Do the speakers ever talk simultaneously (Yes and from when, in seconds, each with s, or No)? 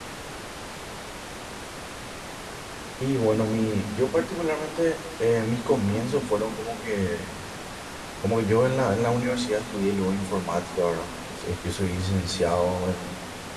No